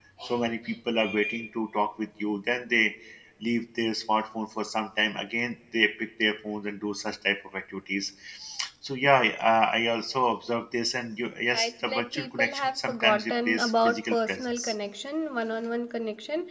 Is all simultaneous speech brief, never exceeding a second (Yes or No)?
No